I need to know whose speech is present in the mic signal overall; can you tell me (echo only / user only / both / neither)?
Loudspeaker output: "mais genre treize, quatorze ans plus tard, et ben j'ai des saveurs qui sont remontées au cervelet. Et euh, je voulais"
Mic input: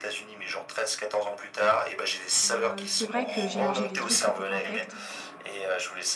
both